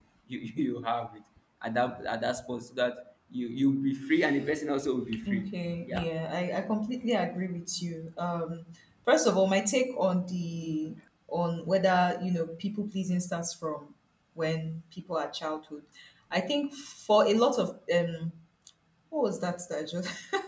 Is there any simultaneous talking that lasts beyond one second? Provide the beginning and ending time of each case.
none

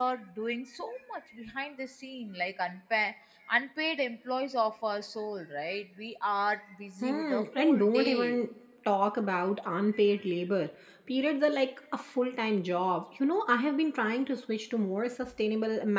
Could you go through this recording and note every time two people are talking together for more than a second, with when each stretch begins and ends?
7.0-8.4

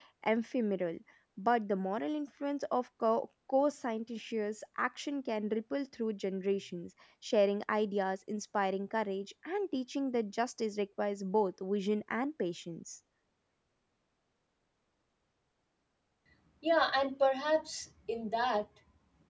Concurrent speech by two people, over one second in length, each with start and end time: none

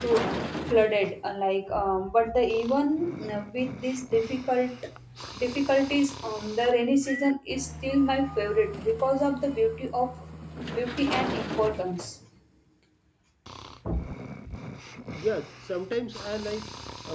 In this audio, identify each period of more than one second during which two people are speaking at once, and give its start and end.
none

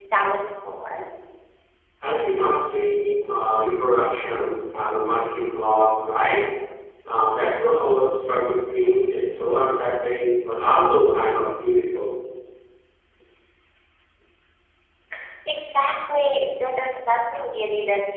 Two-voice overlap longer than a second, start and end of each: none

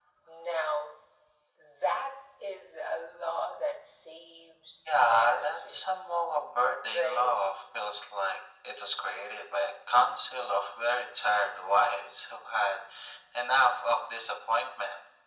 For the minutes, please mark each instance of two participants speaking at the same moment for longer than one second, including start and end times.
4.9-6.1

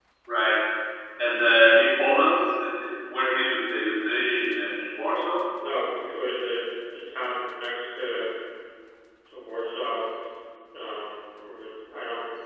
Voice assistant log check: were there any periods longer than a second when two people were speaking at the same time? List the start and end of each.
none

